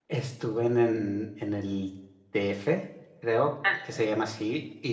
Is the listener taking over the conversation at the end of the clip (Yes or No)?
No